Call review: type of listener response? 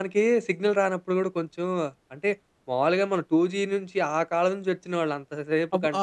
listening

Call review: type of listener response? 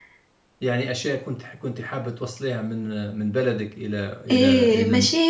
taking over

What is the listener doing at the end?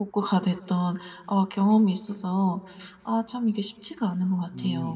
taking over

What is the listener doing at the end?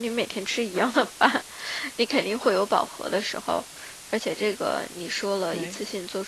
listening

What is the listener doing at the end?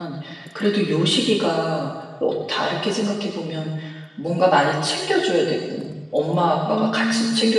listening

